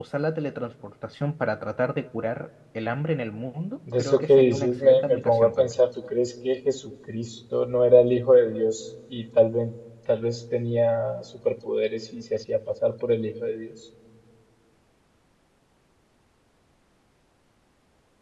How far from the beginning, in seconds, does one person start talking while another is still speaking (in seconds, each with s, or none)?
3.9 s